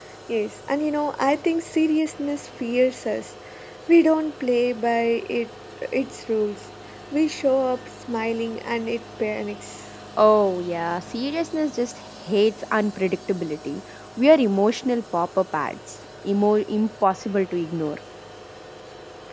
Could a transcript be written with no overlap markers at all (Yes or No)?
Yes